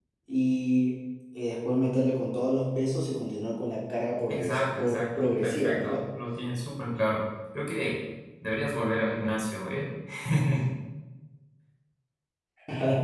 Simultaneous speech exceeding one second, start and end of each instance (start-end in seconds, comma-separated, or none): 4.3-6.0